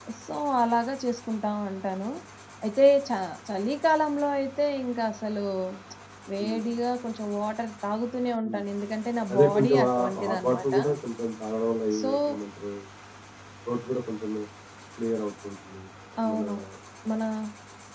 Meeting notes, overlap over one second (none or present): present